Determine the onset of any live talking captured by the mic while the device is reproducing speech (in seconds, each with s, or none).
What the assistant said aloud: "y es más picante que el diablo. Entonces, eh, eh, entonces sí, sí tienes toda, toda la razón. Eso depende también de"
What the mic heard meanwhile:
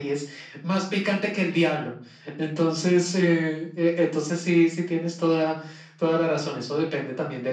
none